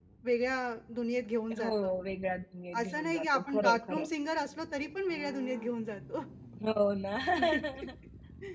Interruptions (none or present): present